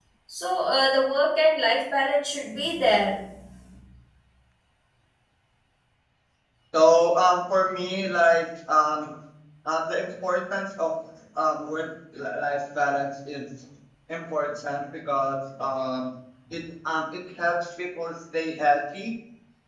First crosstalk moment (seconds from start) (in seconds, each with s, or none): none